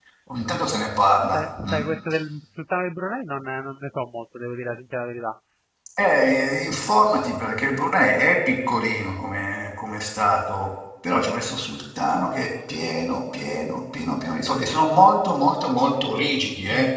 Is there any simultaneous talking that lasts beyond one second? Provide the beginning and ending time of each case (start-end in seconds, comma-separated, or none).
none